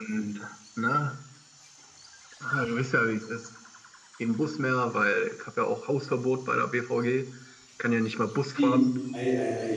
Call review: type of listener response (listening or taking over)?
taking over